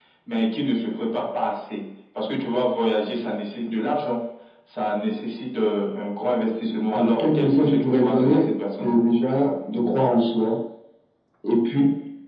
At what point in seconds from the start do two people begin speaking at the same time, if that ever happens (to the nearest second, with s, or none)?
7 s